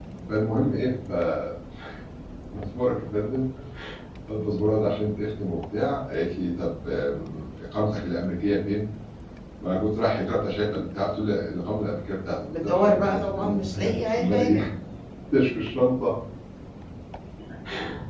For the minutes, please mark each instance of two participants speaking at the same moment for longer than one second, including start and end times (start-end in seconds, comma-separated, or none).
12.5-14.6